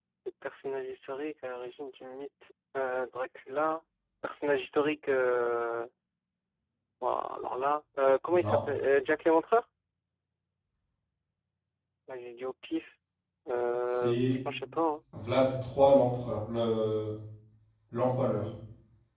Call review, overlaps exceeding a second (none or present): none